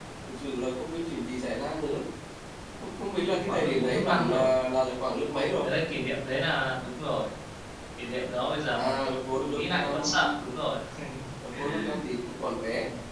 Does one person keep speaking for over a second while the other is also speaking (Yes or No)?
Yes